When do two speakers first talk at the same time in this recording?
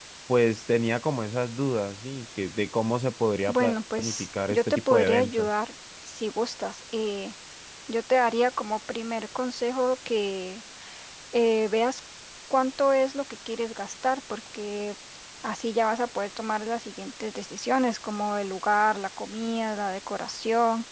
3.5 s

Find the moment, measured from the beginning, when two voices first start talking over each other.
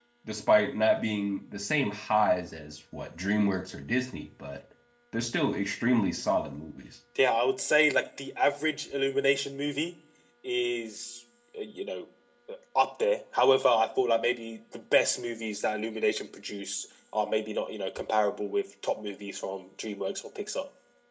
none

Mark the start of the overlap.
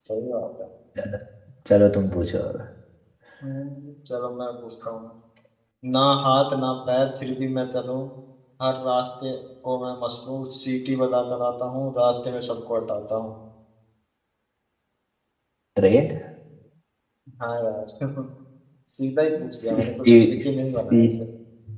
19.7 s

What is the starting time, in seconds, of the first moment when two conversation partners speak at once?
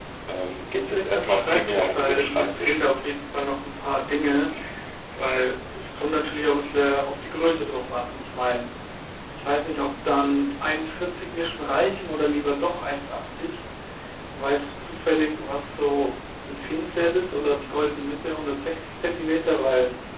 0.9 s

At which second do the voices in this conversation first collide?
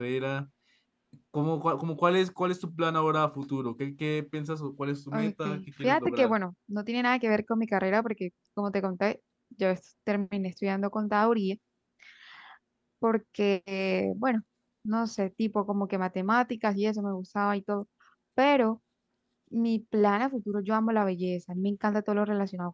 5.1 s

